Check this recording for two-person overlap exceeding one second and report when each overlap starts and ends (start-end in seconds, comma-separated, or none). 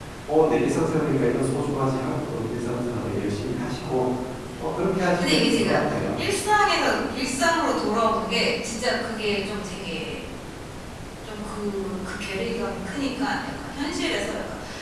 5.2-6.4